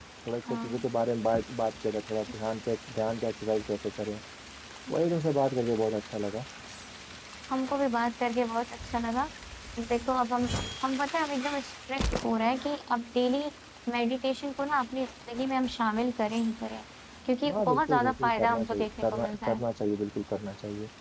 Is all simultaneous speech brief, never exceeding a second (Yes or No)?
No